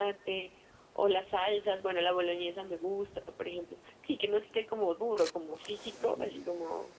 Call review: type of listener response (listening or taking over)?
taking over